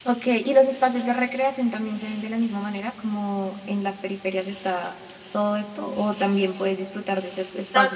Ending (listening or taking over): listening